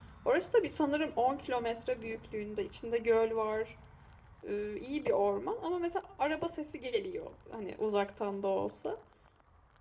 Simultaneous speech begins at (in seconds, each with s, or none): none